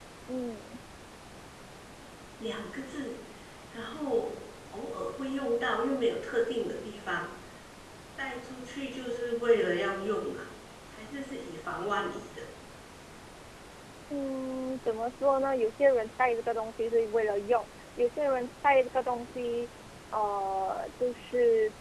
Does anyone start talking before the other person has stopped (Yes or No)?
No